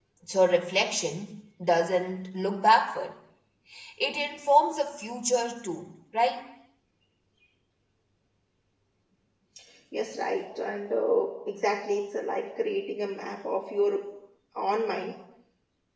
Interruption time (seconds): none

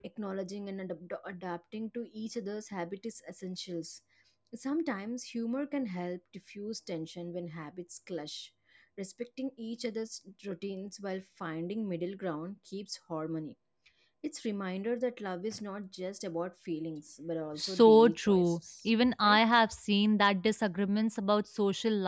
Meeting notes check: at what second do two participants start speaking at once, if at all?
17.6 s

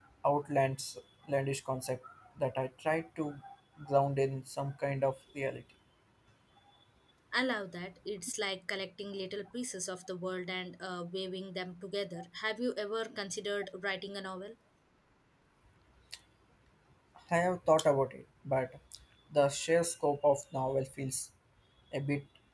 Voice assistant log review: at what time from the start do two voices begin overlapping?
none

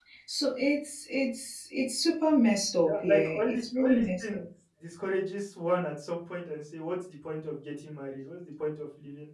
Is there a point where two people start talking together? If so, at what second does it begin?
2.8 s

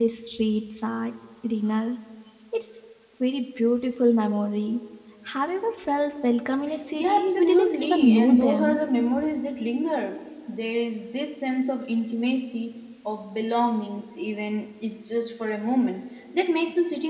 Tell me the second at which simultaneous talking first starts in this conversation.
6.9 s

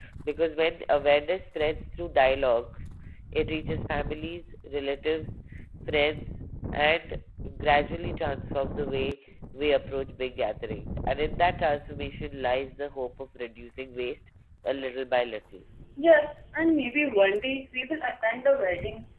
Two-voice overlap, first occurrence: none

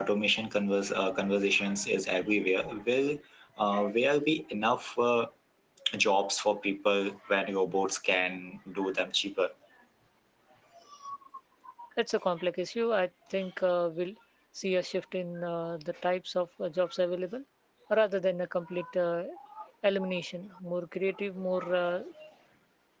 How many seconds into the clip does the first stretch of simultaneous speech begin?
none

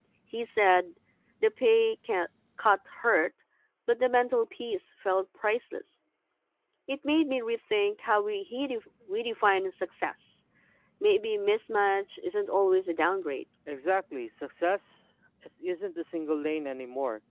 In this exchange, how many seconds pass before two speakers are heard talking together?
none

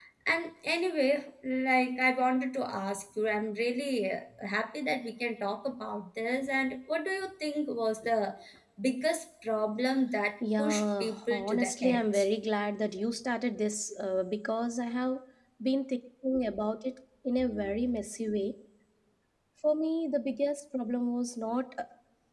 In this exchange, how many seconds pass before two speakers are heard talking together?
10.4 s

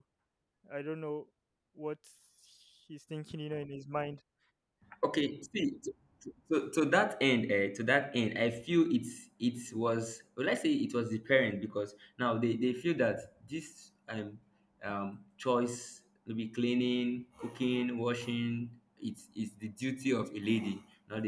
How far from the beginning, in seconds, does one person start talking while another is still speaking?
none

